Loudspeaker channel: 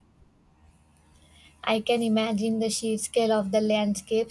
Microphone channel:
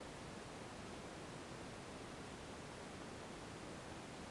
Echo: none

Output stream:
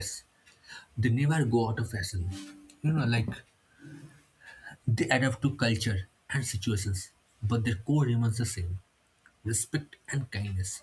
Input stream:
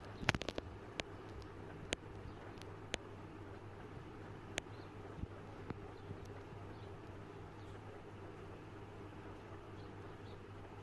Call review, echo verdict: none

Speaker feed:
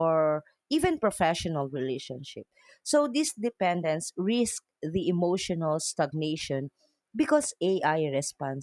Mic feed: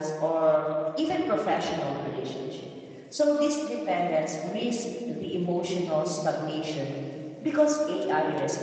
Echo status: present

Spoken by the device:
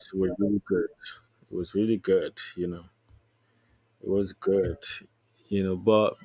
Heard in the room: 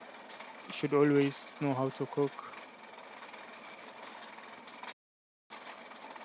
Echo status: none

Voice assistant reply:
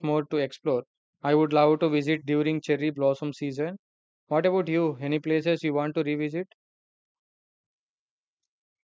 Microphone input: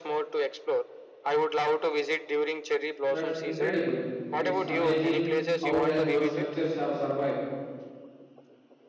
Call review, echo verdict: present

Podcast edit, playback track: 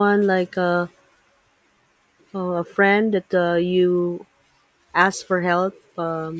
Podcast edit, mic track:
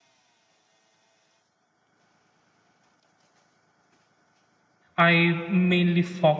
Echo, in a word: none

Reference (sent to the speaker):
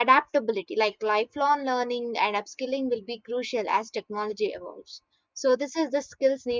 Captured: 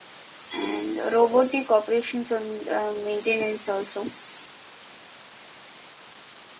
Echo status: none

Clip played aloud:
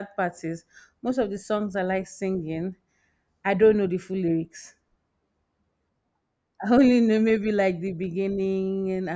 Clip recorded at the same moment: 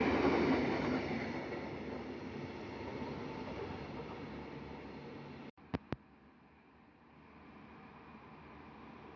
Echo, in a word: none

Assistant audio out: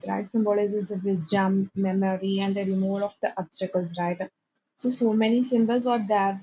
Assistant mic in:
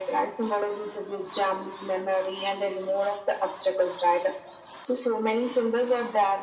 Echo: present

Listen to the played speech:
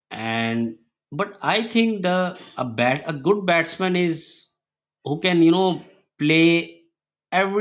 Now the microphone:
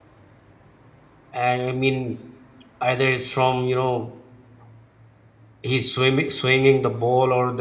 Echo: none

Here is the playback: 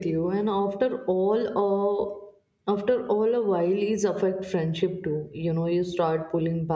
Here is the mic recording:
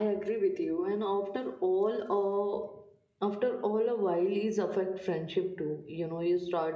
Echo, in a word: present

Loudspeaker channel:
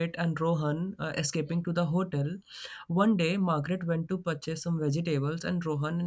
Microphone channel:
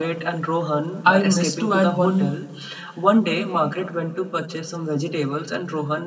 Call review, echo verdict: present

